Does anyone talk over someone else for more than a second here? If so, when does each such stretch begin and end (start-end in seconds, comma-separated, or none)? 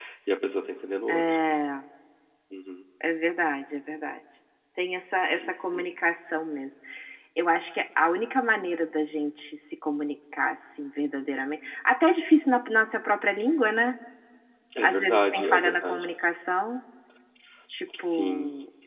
14.8-16.0